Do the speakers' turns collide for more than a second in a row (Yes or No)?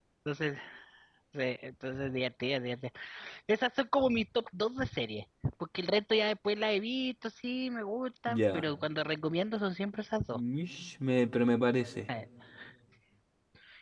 No